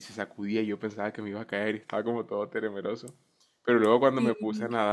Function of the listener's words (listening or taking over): listening